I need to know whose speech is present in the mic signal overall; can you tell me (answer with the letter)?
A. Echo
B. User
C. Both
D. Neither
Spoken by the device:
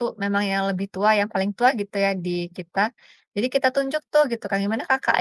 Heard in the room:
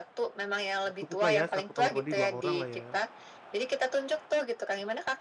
C